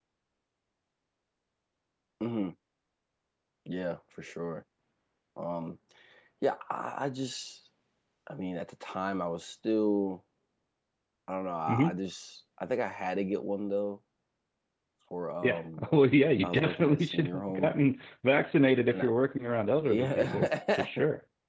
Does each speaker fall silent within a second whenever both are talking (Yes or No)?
No